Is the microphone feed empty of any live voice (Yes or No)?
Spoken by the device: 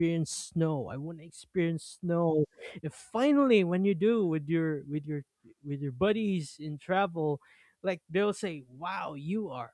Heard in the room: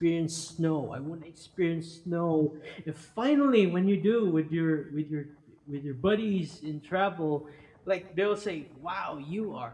Yes